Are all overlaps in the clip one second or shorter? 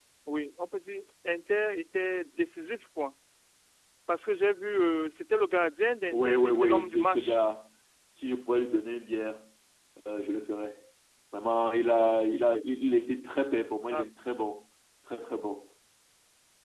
No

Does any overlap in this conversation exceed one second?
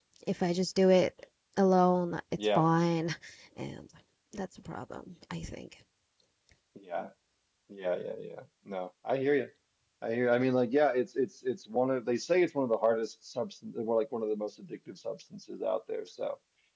No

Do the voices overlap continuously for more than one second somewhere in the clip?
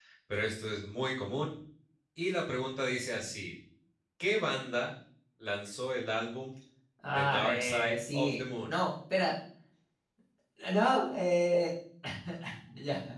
Yes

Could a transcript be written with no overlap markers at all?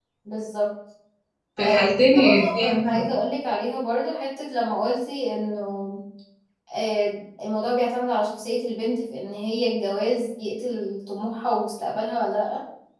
No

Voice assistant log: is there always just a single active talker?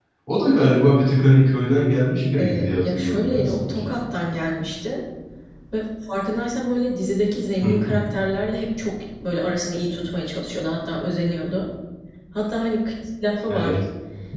No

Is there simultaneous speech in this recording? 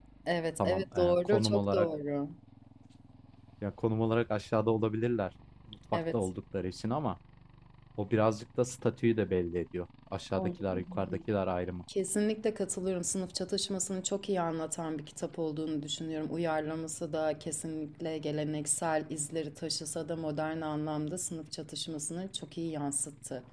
Yes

